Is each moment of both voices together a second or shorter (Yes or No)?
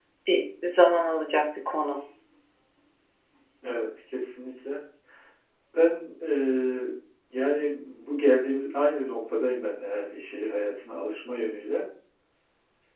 Yes